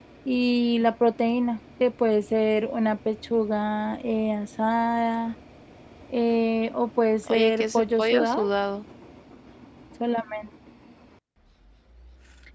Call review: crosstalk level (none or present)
present